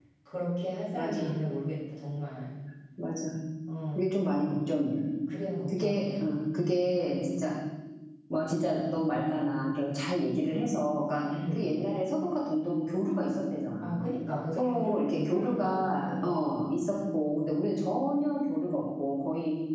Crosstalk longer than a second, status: present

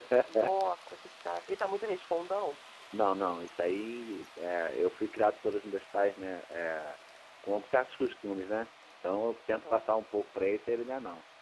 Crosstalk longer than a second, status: none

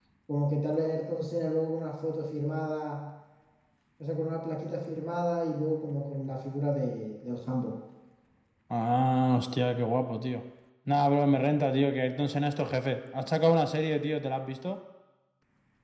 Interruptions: none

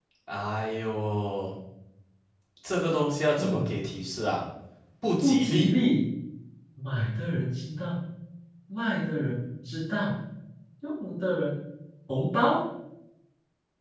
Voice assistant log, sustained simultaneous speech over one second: none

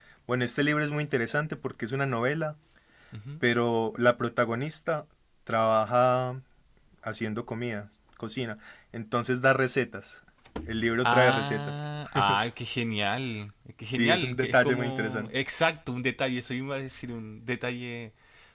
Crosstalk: present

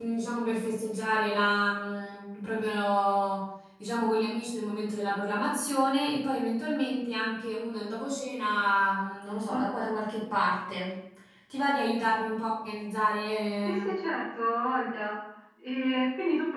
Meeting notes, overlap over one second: none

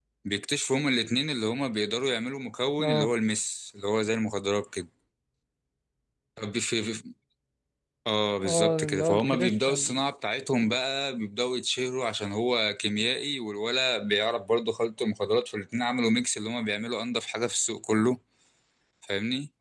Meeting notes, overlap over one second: present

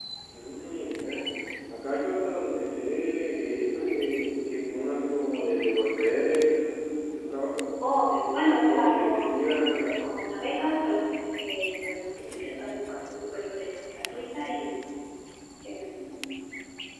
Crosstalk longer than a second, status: present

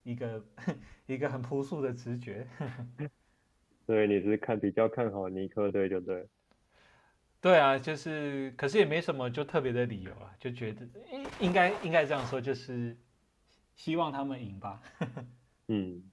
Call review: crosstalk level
none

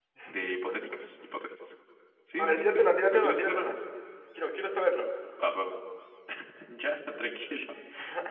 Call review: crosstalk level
present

